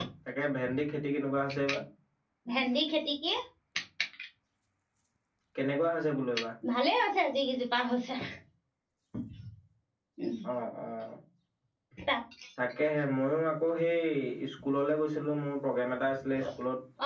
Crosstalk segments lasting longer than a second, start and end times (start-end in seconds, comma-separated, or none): none